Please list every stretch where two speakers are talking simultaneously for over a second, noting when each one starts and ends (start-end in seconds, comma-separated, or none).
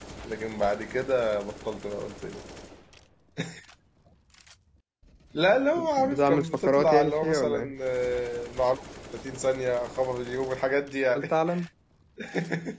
6.0-7.7